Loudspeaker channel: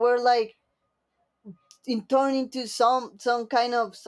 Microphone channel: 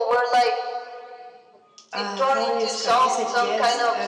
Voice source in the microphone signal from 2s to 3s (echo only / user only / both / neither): both